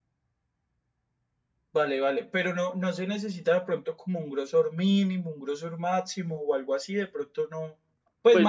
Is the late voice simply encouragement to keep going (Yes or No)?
No